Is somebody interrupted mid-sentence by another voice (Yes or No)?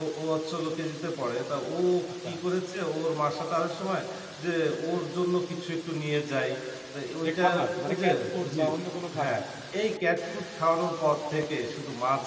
Yes